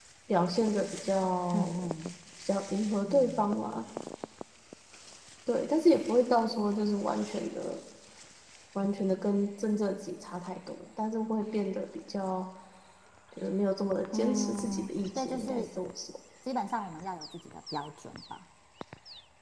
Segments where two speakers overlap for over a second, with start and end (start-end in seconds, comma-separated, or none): 14.1-15.7